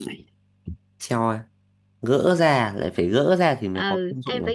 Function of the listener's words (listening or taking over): taking over